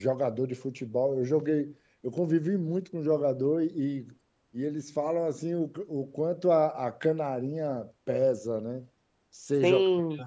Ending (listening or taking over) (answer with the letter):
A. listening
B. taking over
A